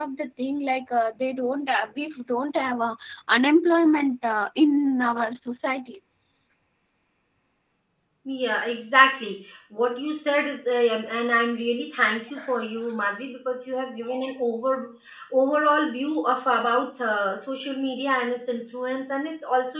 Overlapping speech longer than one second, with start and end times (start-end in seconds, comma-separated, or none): none